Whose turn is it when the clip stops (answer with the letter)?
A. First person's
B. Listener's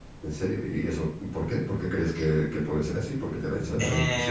B